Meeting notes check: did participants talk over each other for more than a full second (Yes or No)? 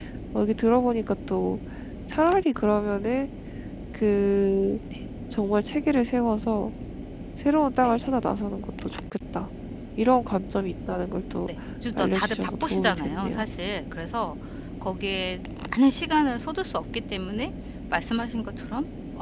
Yes